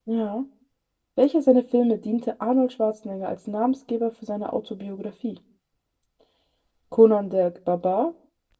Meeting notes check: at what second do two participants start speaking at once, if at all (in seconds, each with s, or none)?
none